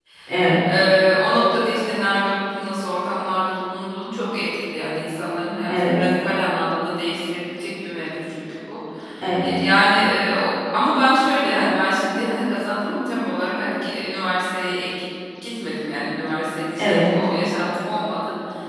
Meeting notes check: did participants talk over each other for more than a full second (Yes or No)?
No